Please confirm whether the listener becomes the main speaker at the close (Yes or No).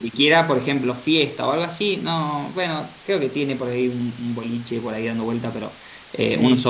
No